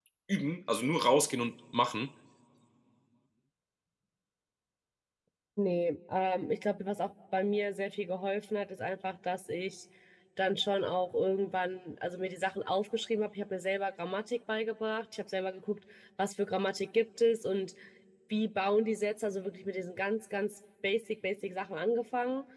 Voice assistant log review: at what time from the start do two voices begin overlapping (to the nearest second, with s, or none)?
none